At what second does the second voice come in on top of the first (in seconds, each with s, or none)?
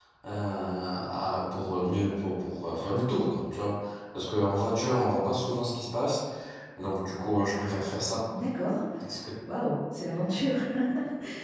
none